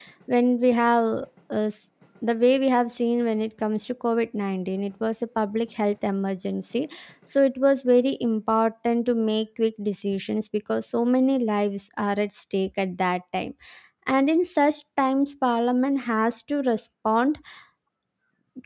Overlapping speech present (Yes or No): No